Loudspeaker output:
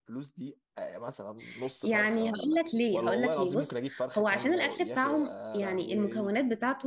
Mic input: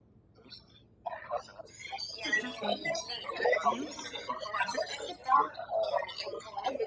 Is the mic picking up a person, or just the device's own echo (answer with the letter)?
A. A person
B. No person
A